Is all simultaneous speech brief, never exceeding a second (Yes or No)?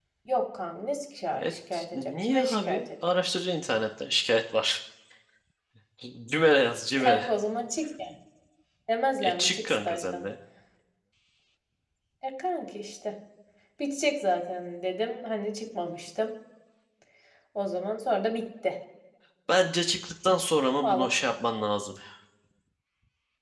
No